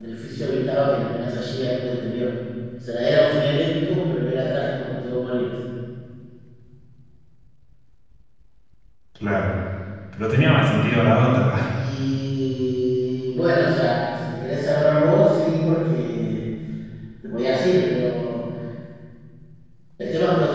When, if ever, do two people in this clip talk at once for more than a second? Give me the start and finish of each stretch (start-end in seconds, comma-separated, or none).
none